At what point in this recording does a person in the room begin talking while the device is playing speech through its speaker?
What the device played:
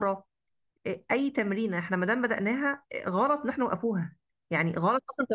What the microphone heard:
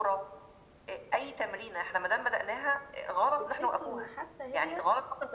3 s

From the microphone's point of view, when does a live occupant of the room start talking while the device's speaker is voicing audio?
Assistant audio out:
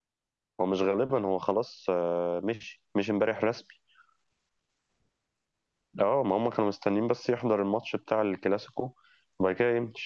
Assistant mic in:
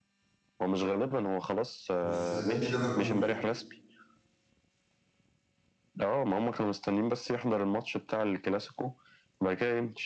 2 s

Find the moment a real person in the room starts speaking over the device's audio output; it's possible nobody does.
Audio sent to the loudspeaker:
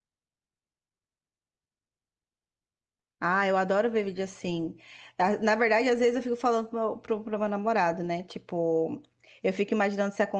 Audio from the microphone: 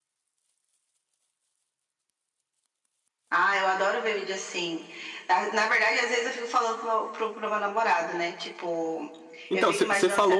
9 s

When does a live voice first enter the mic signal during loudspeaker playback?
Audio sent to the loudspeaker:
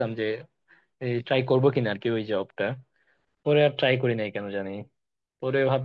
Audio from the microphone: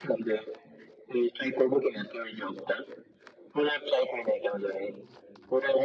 none

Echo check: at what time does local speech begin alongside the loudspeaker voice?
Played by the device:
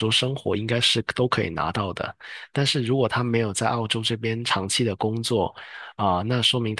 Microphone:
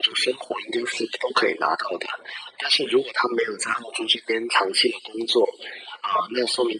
none

